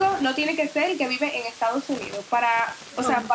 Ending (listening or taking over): listening